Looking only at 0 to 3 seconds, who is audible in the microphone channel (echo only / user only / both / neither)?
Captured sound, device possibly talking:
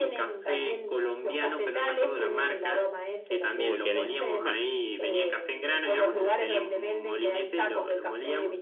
echo only